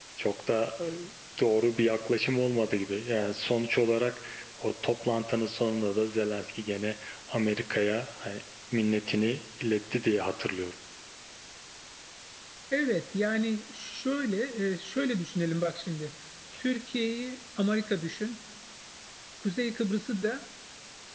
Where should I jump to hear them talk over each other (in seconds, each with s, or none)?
none